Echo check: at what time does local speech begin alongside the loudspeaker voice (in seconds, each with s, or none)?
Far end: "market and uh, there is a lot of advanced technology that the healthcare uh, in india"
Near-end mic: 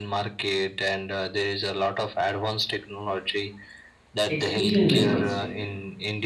4.2 s